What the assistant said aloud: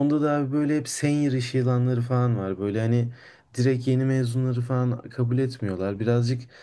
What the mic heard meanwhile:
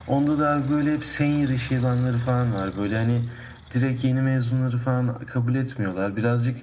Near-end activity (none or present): none